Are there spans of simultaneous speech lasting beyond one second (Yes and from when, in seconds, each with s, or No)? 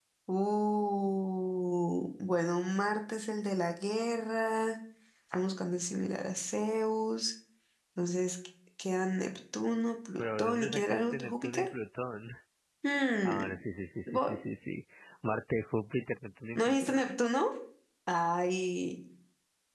Yes, from 10.2 s